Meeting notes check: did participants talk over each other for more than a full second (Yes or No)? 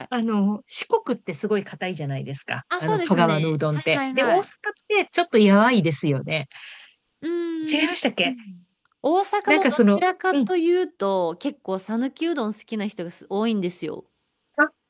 Yes